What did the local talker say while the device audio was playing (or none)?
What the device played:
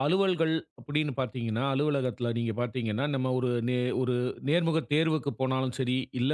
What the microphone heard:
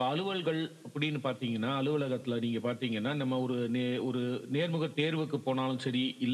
none